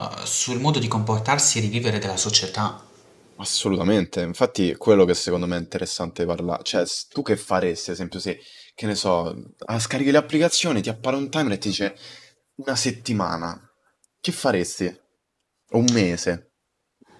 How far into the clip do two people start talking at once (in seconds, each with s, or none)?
none